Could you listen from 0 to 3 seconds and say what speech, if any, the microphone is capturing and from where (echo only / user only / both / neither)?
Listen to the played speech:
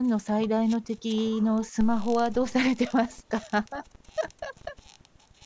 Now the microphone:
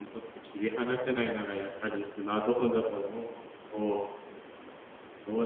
user only